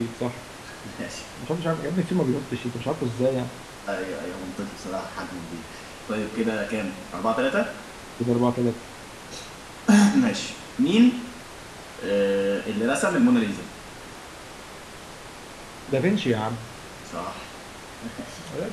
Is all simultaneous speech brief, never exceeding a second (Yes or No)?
Yes